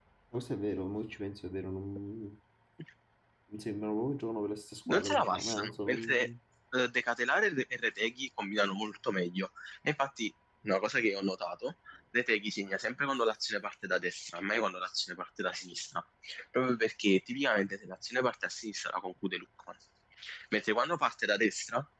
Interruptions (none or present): present